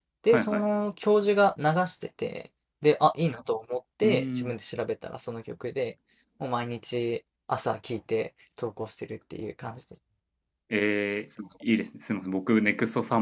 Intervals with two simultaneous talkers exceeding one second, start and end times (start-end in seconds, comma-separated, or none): none